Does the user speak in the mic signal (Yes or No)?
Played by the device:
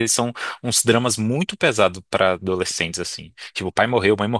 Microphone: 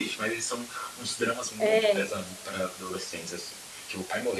Yes